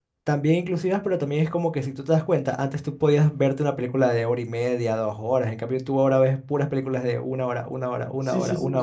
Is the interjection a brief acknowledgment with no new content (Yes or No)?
No